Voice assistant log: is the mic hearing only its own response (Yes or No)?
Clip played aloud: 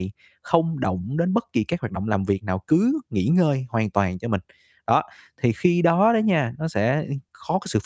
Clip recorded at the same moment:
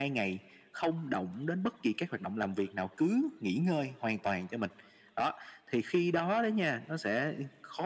Yes